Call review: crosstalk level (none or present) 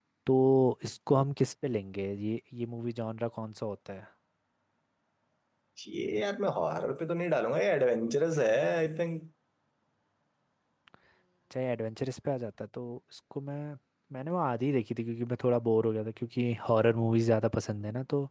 none